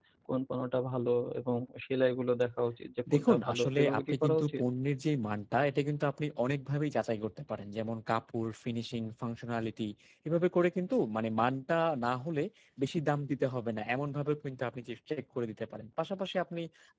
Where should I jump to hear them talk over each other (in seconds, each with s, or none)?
3.1 s